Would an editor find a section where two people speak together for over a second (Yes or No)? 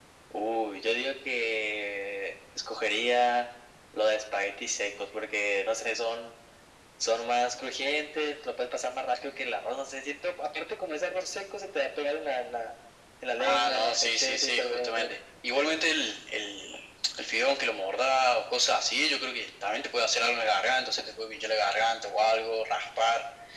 Yes